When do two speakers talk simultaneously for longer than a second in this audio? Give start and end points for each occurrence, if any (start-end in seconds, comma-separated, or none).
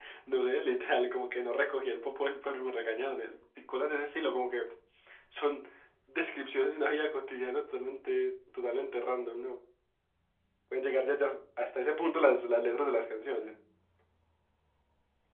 none